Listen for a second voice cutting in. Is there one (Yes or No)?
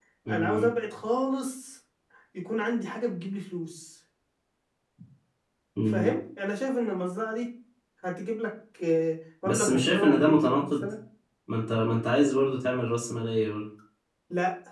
Yes